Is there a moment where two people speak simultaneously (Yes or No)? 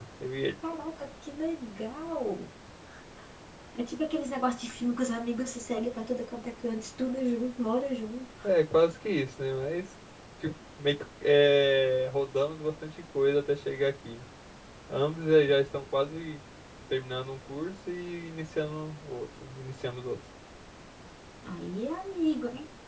No